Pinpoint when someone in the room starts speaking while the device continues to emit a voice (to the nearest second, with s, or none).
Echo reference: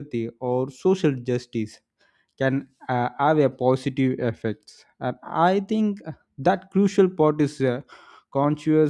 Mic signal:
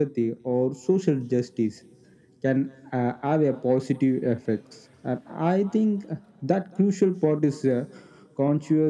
none